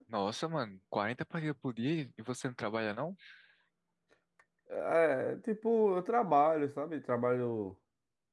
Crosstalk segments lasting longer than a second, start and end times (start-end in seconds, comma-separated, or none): none